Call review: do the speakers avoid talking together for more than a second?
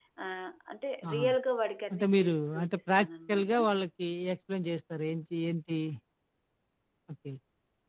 No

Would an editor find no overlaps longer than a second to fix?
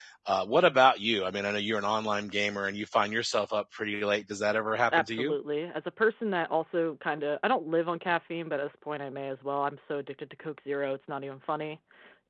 Yes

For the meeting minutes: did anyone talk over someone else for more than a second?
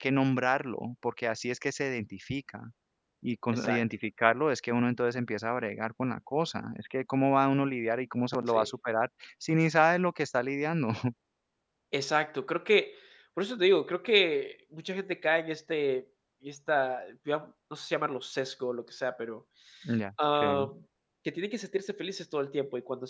No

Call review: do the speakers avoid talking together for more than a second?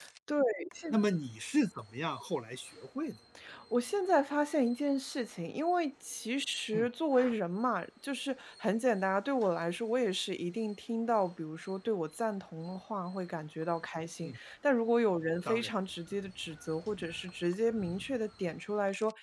Yes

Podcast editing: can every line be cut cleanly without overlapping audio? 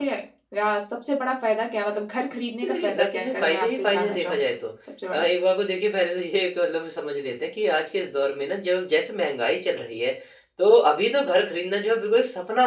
No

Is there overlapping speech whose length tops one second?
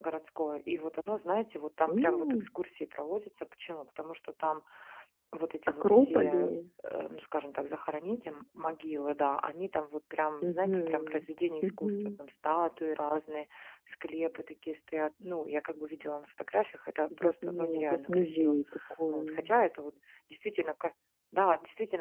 Yes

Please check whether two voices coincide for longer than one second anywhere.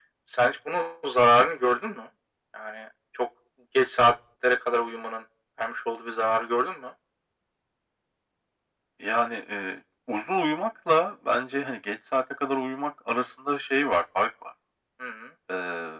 No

